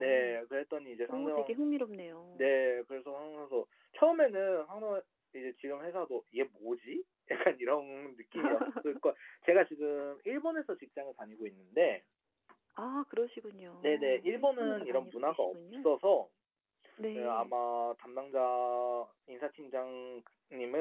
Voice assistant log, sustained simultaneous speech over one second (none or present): present